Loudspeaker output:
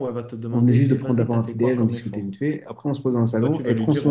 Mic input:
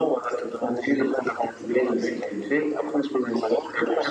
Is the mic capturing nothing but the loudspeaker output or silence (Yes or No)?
Yes